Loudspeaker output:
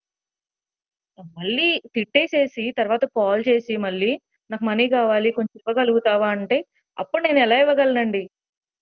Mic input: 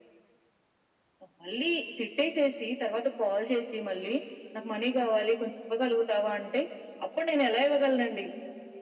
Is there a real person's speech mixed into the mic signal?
No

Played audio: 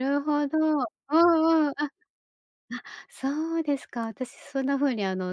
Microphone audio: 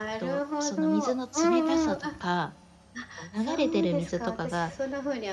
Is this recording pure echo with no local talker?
No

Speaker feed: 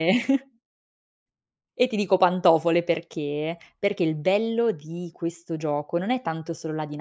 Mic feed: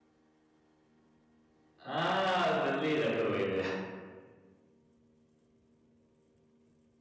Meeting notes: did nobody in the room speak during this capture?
No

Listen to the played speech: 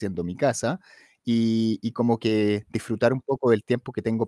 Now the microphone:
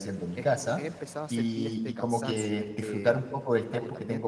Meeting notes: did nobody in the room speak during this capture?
No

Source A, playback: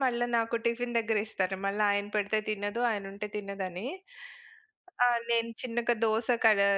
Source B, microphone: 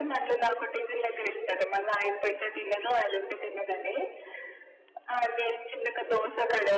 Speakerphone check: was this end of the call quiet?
Yes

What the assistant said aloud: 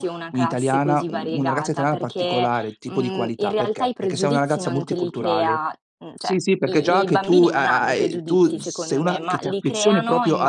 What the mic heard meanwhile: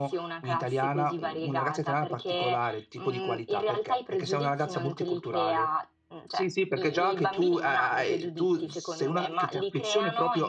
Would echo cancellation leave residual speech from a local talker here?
No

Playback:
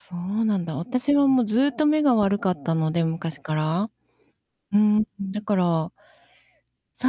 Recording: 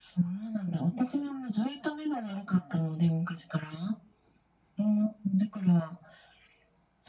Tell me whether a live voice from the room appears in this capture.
No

